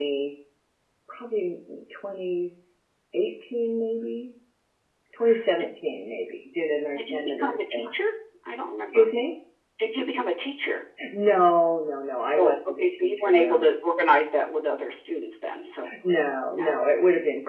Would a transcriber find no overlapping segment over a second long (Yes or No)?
No